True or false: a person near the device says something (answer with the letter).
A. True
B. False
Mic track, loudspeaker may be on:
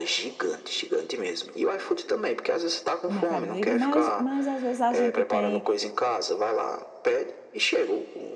A